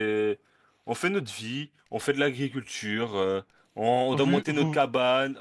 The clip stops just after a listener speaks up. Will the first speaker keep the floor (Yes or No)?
Yes